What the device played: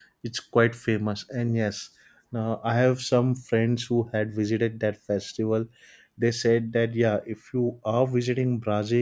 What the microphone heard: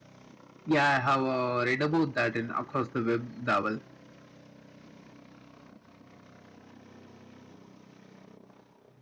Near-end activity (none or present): present